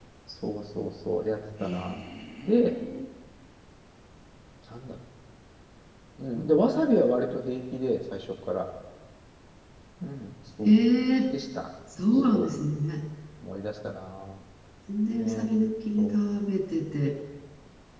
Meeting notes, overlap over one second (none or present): none